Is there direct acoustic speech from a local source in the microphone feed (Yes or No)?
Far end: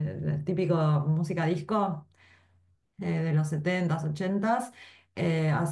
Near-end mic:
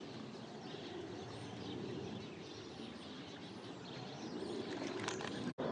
No